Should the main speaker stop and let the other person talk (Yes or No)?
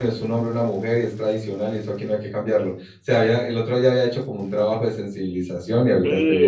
Yes